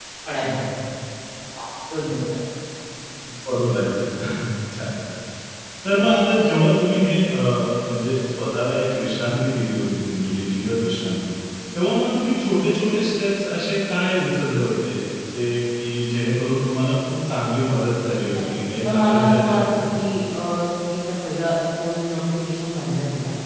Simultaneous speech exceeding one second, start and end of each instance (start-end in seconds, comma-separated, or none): 18.3-19.8